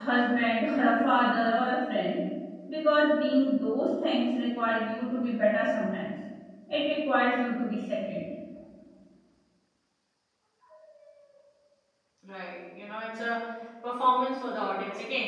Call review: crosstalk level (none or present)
none